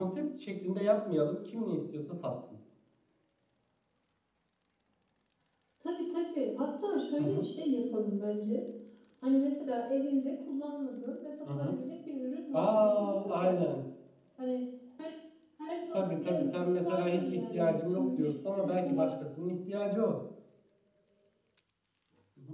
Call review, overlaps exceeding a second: present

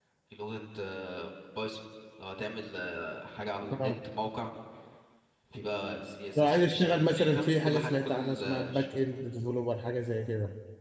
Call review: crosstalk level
present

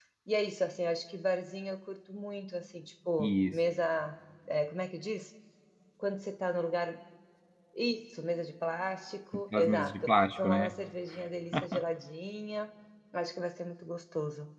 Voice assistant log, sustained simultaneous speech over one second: present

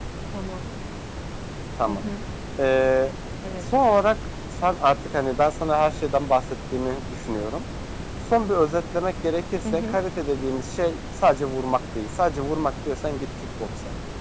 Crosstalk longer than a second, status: none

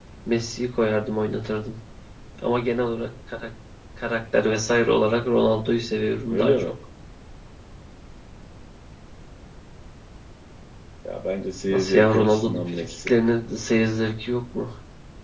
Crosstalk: present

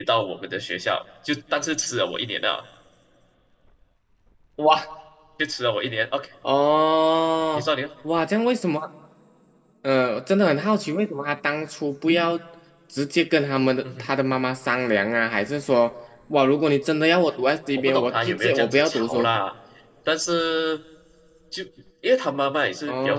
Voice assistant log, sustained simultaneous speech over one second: present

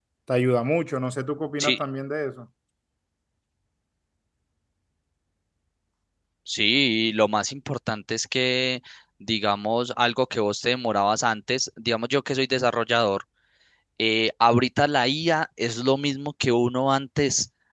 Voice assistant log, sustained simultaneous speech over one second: none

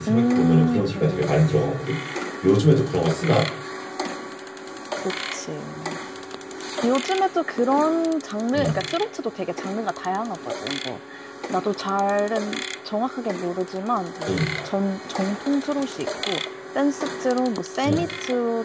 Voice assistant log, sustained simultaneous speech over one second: present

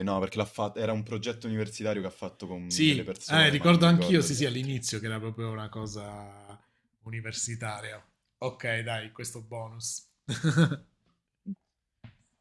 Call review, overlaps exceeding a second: present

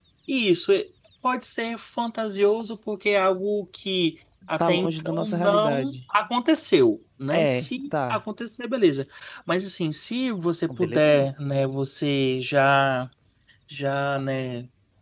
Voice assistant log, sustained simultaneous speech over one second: present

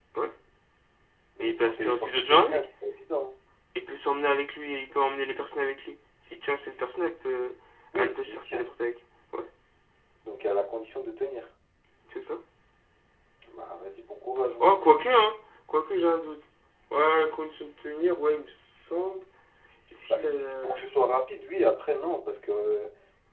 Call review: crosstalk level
present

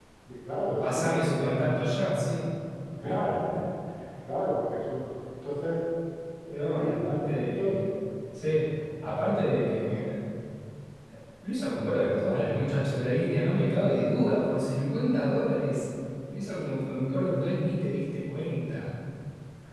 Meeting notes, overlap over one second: present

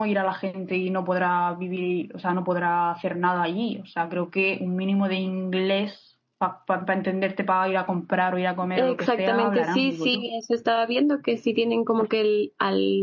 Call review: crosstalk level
present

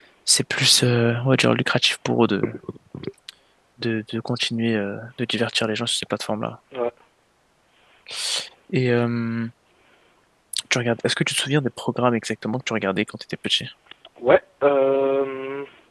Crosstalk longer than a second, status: none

